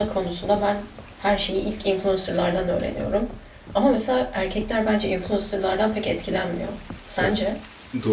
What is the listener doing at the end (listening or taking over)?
taking over